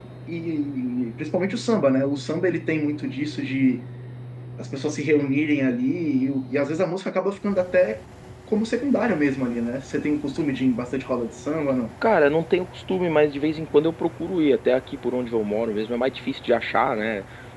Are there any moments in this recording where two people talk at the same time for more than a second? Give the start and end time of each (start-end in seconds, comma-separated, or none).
none